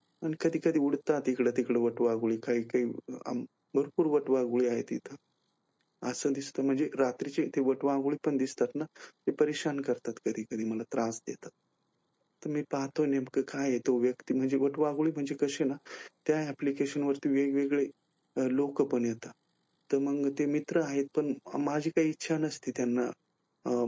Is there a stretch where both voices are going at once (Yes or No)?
No